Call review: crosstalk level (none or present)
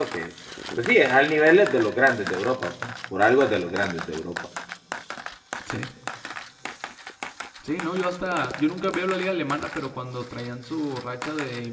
none